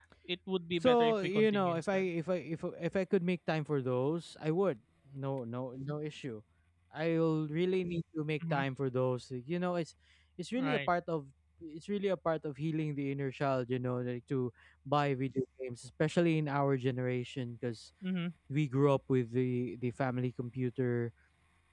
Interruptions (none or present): present